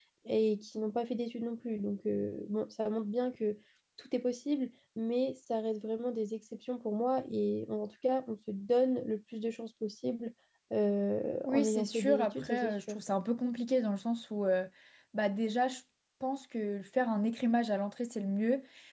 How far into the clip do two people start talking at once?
11 s

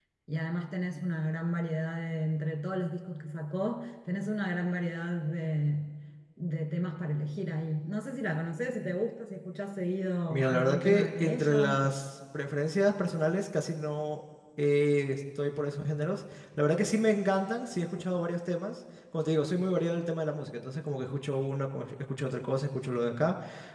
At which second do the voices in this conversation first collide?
10 s

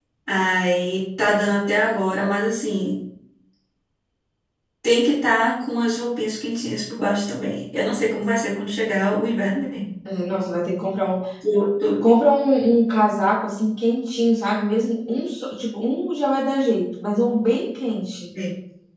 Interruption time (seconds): none

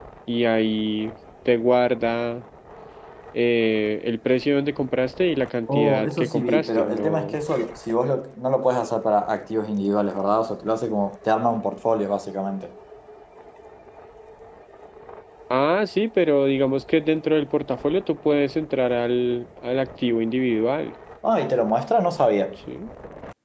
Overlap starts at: 6 s

